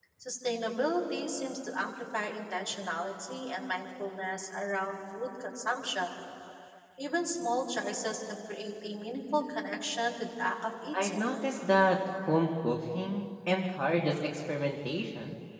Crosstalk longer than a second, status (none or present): none